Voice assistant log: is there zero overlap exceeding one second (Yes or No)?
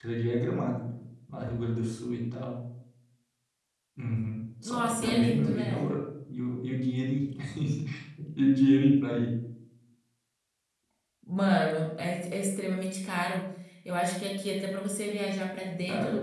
No